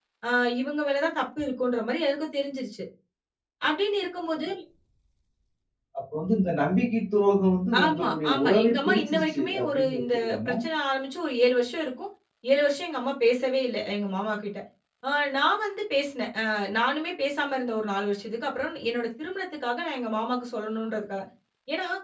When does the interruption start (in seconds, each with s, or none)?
7.7 s